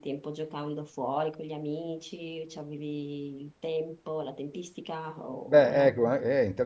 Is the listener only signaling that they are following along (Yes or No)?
No